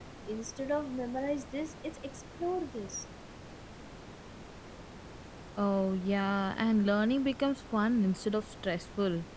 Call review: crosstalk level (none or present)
none